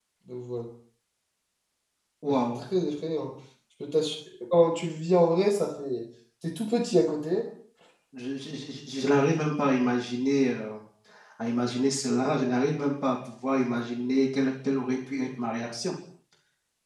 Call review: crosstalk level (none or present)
none